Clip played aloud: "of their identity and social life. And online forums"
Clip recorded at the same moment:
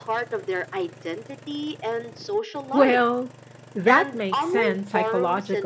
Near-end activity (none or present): present